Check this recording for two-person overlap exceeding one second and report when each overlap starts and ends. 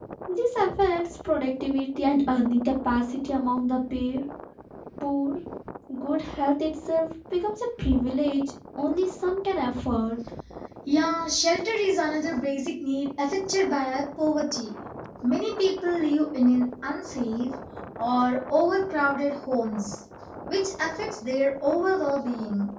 none

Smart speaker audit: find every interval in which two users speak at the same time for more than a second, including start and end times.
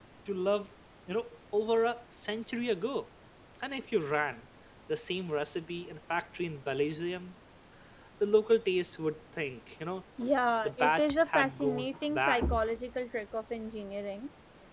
10.7-12.4

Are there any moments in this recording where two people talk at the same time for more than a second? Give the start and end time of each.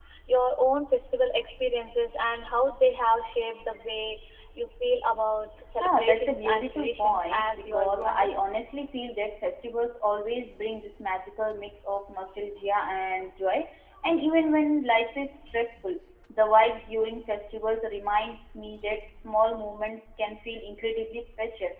5.8-8.3

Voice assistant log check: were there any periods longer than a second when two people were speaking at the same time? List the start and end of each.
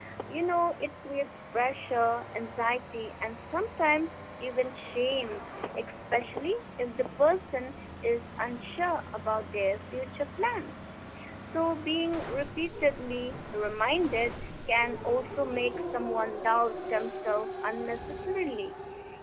none

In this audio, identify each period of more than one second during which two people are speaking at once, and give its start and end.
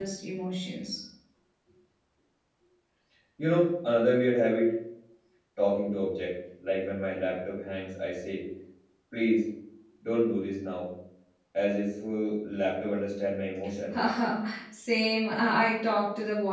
none

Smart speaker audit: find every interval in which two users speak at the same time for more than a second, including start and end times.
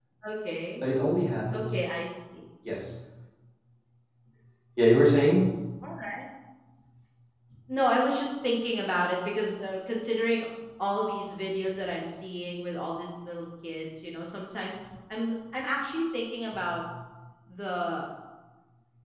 none

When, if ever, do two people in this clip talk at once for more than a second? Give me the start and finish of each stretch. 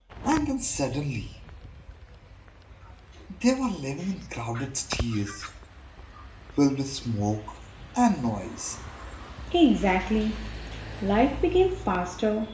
none

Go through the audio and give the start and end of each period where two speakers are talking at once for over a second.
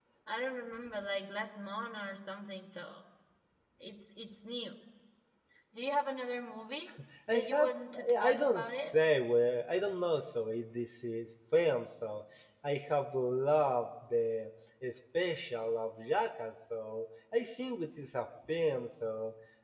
7.3-8.9

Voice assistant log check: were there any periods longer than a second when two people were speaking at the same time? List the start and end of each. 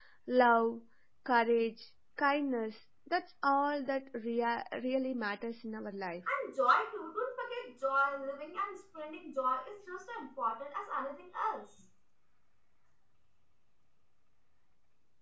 none

